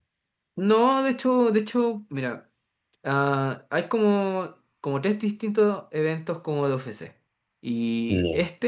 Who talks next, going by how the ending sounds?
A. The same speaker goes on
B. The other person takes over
A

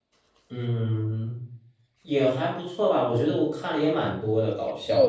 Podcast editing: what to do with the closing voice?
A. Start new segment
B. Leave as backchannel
A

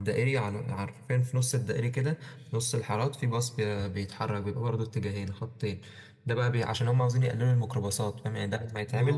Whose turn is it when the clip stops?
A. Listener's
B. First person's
B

